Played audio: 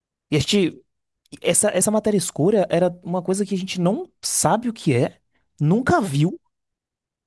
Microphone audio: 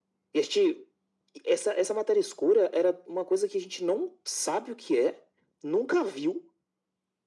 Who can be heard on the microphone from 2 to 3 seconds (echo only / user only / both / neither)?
echo only